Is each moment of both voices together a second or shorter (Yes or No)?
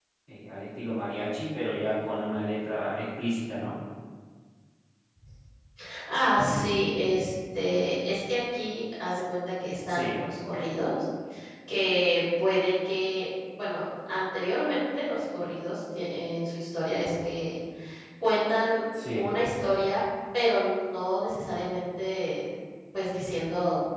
Yes